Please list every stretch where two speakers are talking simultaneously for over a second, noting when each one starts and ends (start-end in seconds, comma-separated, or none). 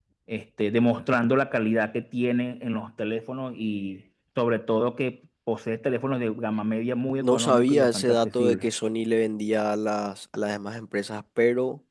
7.2-8.7